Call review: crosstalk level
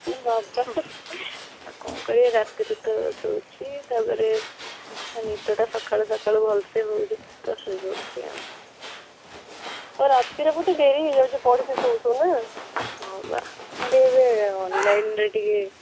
none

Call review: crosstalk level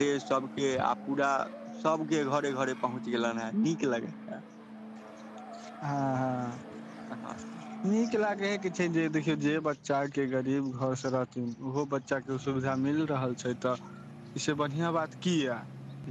none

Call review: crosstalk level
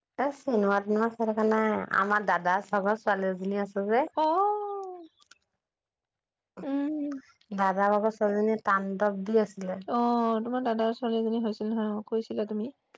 none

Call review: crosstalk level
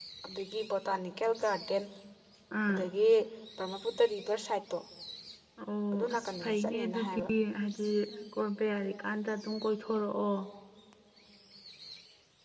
present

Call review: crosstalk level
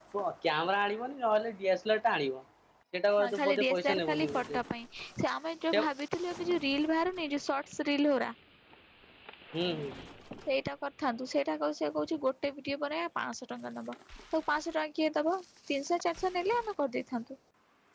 present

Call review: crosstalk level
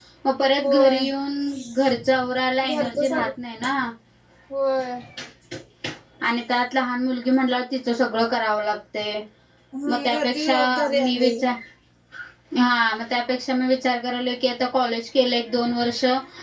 present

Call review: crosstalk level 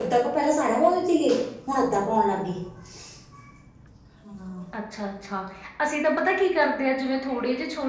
none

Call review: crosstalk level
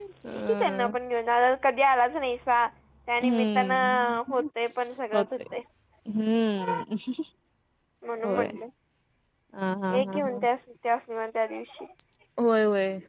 present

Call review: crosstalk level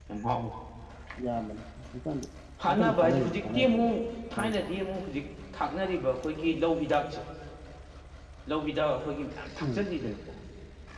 present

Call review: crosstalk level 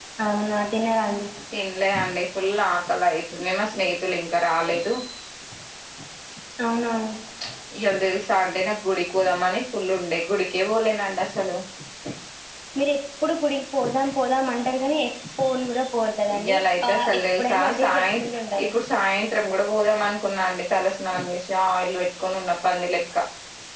present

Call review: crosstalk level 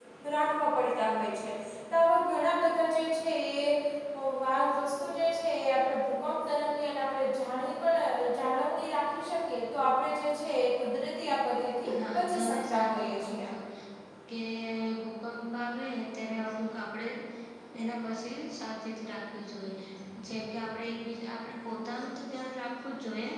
present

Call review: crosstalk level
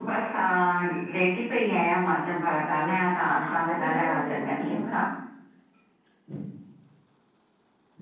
present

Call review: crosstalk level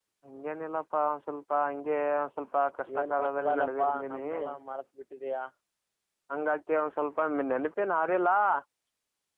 present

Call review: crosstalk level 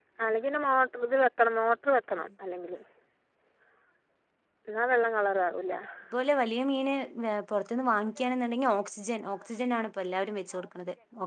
none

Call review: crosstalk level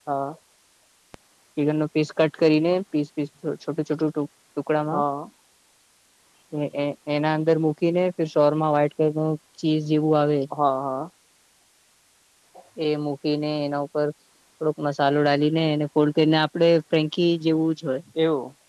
none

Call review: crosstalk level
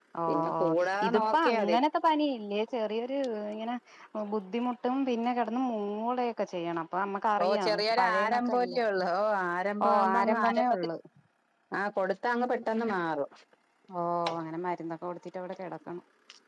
present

